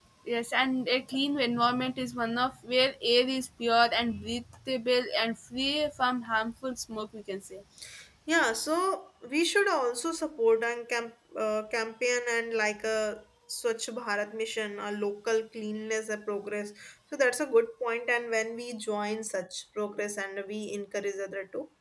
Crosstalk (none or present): none